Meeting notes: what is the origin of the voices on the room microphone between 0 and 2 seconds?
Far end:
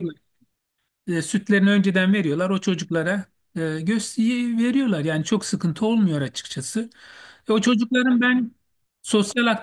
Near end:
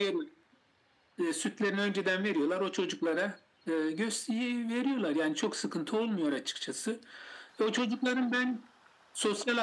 echo only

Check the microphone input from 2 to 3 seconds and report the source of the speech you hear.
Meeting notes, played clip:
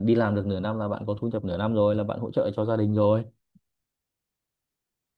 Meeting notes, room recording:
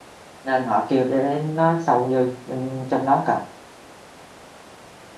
user only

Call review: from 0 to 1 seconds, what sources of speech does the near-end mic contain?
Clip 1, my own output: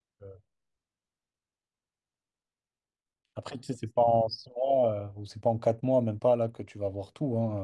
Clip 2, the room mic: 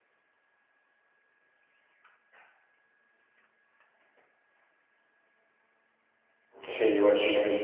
neither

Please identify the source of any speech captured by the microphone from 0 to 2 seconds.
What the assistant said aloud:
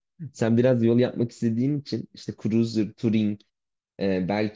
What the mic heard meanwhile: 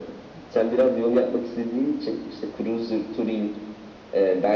echo only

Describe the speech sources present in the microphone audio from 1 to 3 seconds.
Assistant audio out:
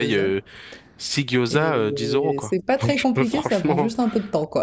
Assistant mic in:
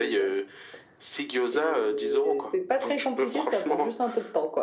echo only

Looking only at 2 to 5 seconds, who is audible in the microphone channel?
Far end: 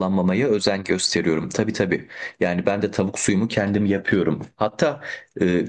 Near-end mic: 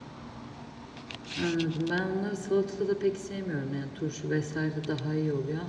user only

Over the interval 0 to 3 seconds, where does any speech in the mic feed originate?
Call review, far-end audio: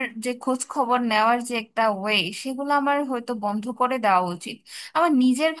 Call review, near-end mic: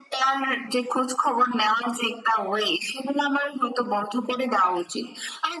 echo only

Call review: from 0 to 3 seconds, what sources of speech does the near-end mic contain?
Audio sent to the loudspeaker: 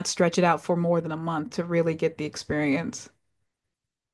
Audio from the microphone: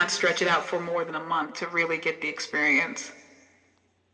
echo only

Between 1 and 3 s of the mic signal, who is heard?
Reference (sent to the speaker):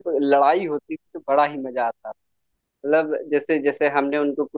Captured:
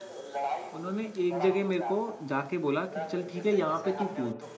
both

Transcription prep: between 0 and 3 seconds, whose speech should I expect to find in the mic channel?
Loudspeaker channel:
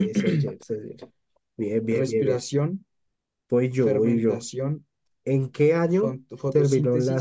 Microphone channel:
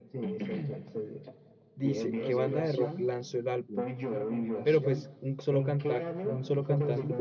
both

